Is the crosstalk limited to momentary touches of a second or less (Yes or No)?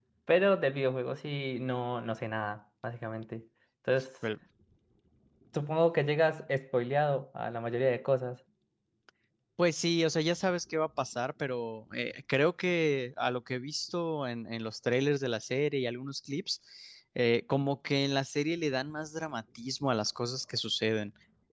Yes